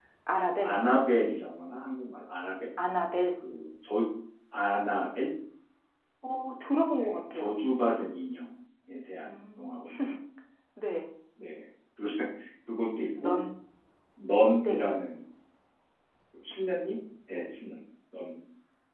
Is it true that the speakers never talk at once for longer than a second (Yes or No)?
Yes